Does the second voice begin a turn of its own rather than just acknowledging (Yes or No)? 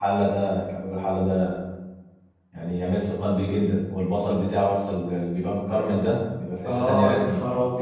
Yes